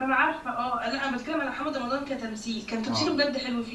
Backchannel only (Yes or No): Yes